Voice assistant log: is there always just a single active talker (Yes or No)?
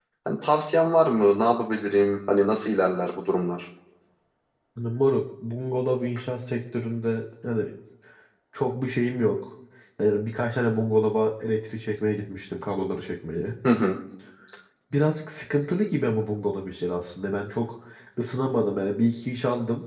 Yes